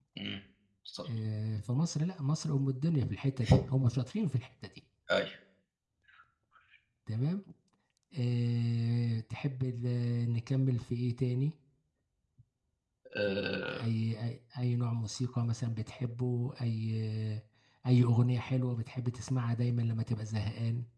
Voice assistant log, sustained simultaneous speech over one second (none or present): none